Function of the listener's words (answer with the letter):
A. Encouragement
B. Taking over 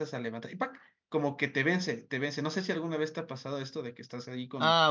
B